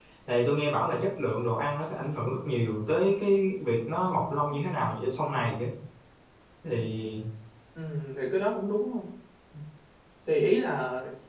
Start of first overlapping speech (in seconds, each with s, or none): none